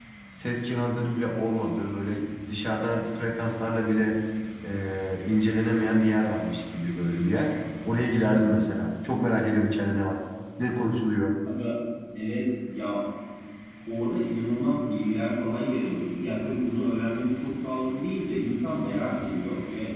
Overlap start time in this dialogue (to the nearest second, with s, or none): none